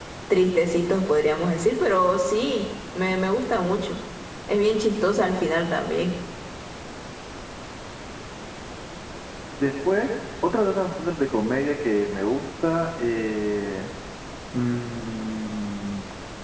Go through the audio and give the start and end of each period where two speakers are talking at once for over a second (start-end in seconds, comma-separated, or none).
none